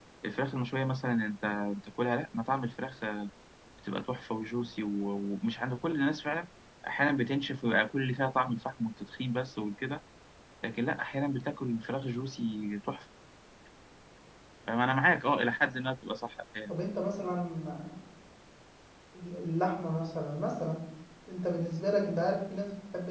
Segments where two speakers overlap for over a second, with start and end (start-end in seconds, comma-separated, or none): none